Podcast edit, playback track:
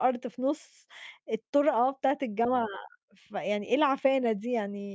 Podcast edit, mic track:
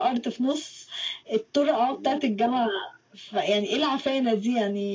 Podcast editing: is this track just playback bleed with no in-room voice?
No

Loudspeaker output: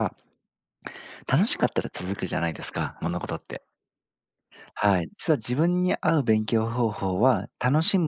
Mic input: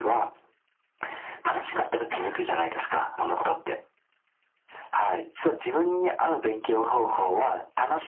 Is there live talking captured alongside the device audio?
No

